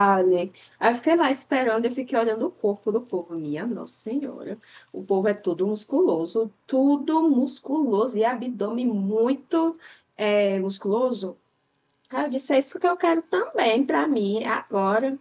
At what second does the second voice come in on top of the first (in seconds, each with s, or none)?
none